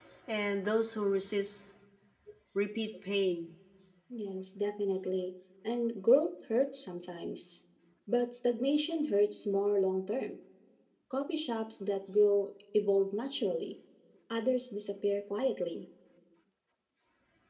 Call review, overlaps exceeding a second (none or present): none